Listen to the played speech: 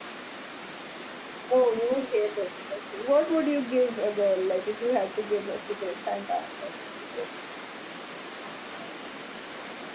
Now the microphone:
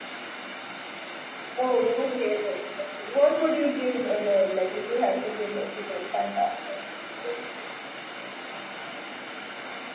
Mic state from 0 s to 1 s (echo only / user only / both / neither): neither